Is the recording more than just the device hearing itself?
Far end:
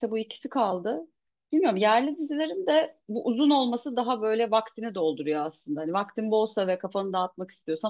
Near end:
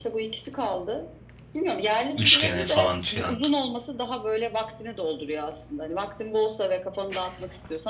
Yes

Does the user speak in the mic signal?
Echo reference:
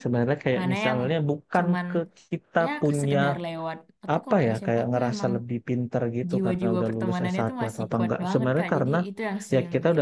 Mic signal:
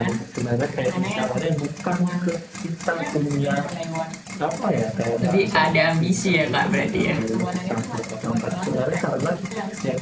Yes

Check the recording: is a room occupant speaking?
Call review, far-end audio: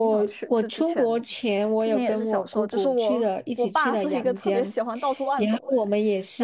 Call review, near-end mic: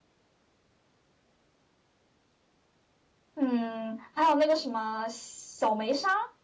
Yes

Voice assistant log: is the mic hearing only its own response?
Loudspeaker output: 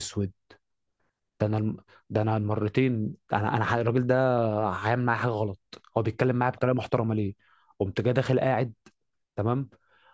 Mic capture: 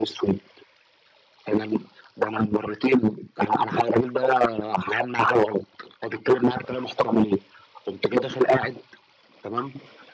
Yes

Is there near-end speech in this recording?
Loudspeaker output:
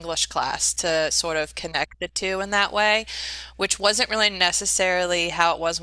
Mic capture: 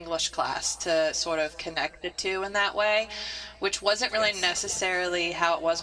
Yes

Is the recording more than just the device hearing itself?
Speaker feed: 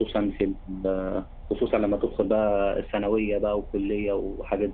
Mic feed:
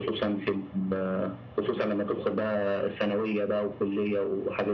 No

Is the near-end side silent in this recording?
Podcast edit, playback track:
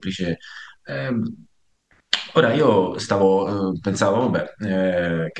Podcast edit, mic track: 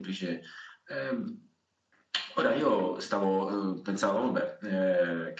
Yes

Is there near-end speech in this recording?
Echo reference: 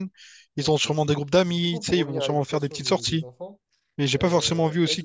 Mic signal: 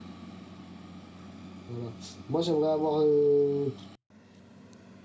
Yes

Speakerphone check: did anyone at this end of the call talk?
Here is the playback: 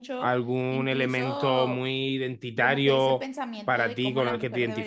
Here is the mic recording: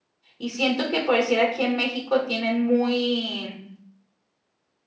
Yes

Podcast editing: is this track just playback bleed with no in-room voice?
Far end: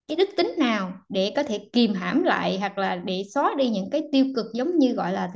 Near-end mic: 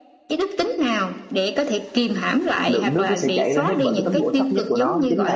No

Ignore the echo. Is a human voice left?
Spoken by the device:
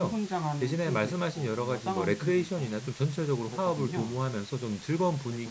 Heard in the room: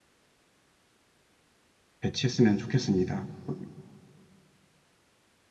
Yes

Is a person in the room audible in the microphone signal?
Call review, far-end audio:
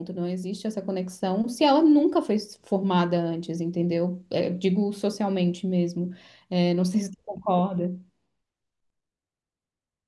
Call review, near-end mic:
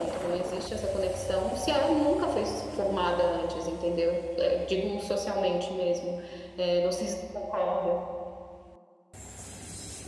No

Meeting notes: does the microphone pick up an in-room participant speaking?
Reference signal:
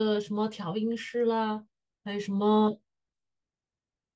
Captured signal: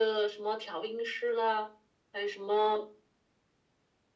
No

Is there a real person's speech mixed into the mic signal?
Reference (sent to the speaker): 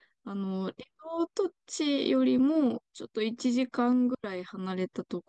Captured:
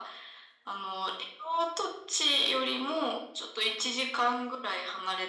No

